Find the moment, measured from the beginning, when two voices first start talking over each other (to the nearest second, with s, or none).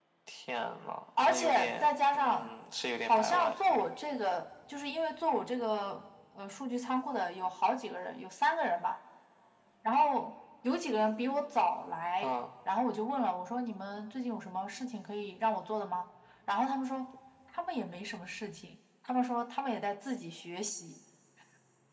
1 s